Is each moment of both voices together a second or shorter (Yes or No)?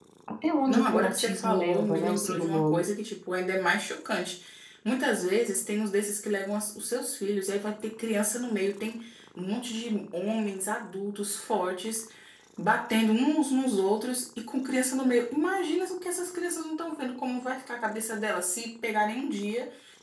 No